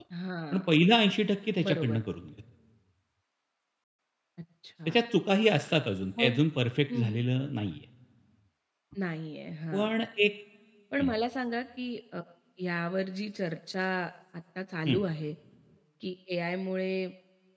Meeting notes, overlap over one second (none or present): none